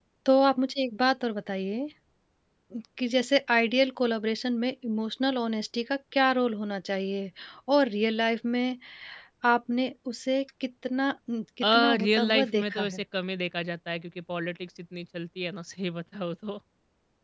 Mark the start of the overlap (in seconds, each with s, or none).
11.6 s